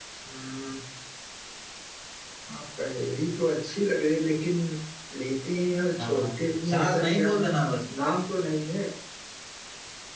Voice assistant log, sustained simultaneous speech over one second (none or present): present